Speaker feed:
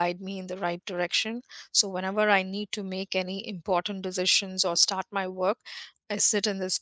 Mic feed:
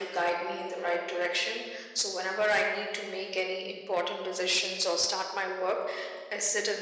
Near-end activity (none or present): none